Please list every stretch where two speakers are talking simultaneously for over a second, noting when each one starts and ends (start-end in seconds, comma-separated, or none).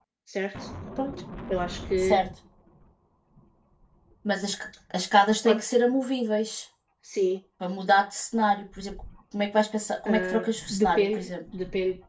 10.1-11.3